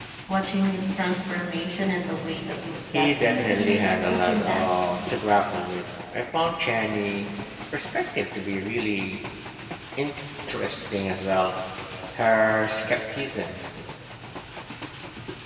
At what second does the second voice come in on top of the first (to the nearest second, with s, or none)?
3 s